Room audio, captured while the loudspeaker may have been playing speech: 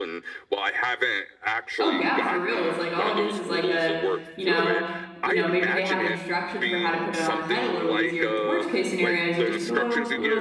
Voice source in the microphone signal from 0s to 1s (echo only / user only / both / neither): echo only